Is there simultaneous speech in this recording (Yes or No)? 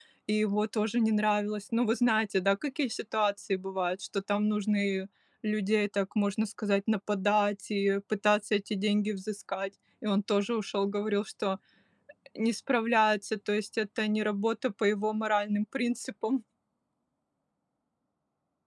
No